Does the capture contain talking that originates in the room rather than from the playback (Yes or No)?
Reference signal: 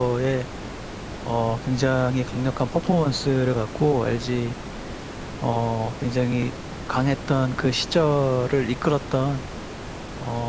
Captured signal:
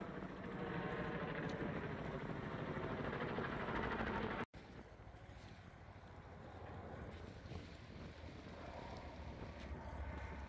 No